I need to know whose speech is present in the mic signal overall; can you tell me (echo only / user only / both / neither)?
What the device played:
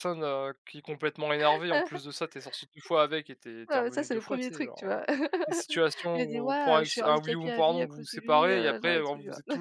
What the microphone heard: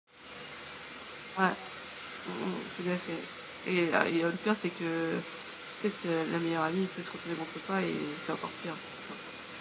user only